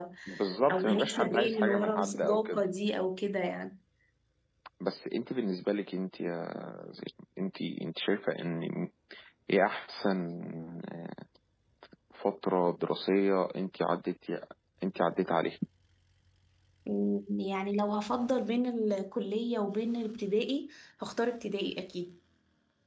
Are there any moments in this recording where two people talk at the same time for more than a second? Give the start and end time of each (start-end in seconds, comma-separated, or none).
0.7-2.6